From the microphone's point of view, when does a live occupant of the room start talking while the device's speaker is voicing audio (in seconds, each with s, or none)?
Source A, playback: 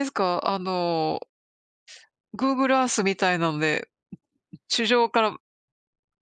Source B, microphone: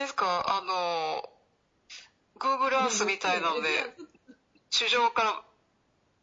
2.8 s